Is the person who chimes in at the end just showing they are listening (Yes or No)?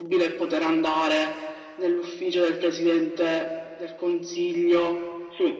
No